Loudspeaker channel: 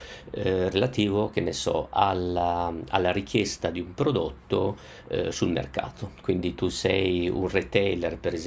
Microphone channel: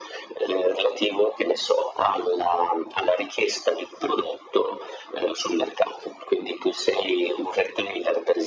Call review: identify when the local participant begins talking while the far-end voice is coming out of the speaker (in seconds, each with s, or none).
none